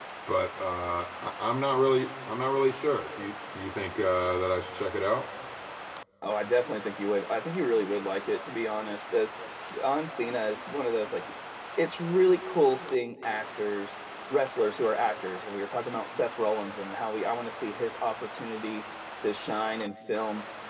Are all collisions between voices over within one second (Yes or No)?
Yes